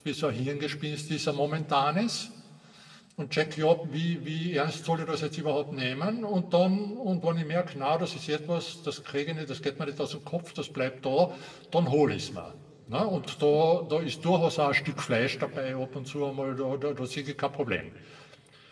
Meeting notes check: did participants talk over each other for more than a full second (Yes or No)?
No